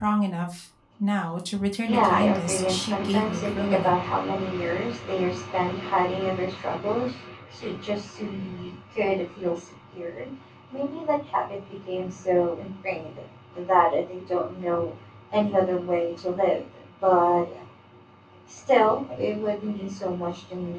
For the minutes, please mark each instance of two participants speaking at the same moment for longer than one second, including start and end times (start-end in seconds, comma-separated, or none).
1.9-3.9